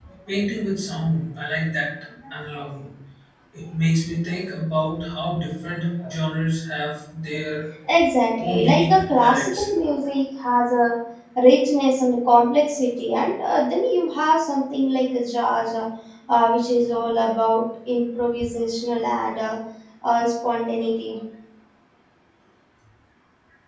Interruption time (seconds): 8.4 s

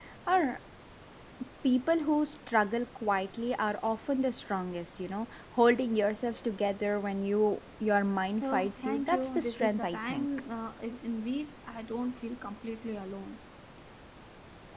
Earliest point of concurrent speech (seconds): 8.4 s

